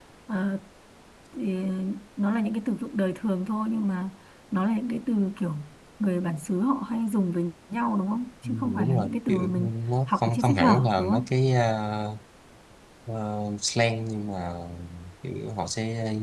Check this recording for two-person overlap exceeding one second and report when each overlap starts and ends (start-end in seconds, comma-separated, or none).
8.4-9.7, 10.1-11.3